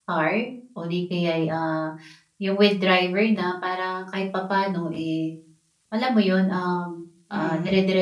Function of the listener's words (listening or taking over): listening